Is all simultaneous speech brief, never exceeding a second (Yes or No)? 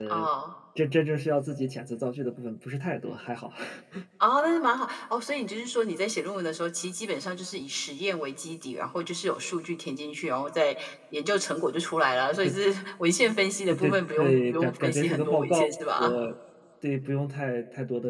No